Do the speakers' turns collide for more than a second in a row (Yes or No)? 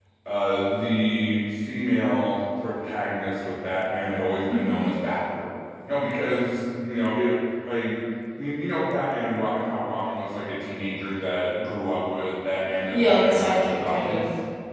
Yes